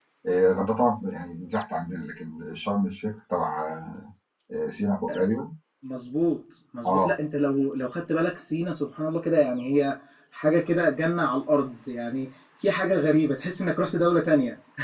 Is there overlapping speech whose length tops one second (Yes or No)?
No